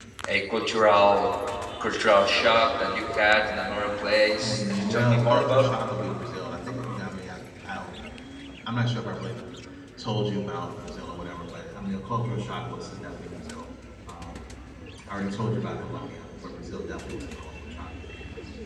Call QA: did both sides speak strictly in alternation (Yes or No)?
No